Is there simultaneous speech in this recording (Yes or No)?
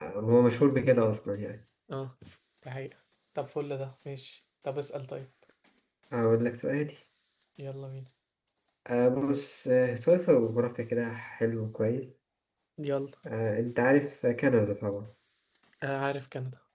No